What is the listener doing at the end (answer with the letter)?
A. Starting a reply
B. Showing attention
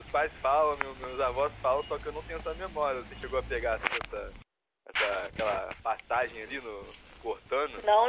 A